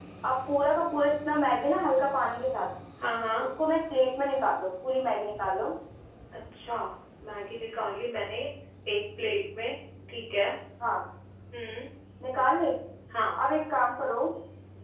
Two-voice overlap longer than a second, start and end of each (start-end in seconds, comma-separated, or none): none